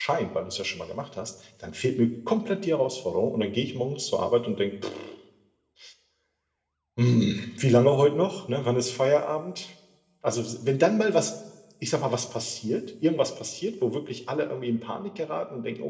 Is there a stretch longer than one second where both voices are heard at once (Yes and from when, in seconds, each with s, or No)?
No